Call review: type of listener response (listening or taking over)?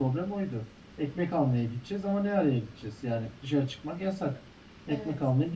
listening